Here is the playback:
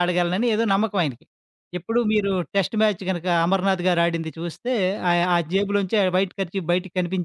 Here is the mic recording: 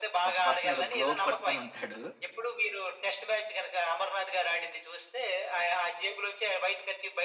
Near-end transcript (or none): ఒక పర్సన్ ఏదో గ్లోబ్ పట్టుకొనుంటాడు.